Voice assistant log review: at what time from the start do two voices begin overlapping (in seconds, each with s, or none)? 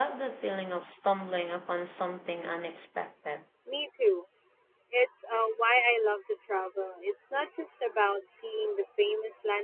none